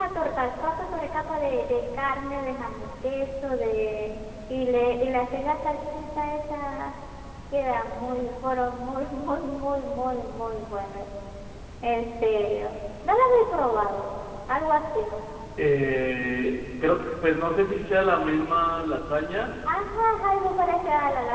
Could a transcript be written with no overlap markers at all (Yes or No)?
Yes